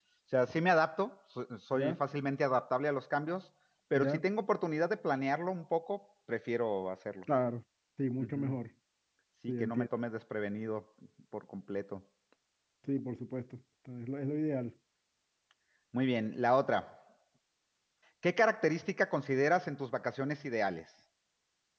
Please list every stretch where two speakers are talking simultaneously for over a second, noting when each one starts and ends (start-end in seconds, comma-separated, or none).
none